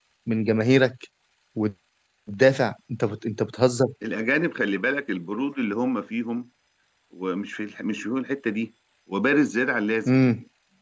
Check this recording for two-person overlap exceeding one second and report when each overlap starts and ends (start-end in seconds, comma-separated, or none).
none